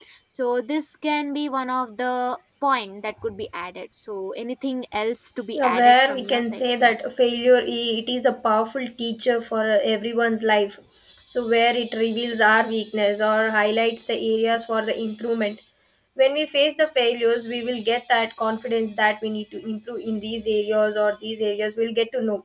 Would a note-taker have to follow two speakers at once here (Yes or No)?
Yes